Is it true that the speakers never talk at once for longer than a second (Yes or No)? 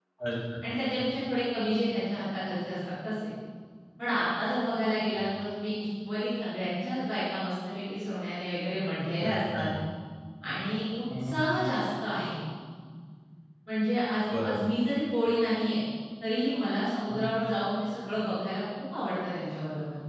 Yes